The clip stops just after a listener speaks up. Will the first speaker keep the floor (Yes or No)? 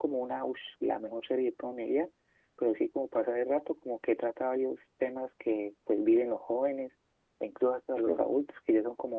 Yes